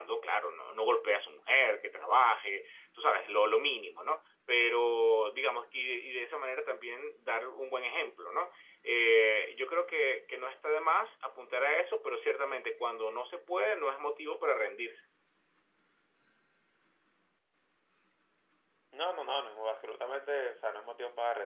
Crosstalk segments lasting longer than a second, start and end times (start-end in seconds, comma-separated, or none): none